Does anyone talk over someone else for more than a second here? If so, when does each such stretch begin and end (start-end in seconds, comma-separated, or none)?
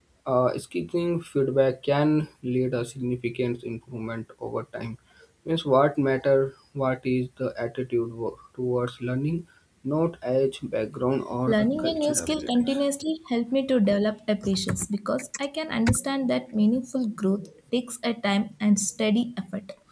11.5-12.8